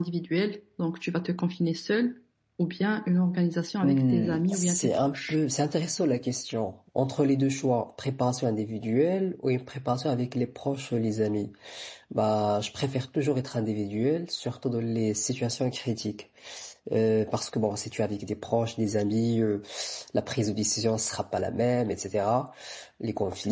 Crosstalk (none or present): present